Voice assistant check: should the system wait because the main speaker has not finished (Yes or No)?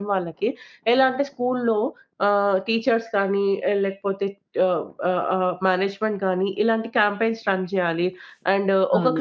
No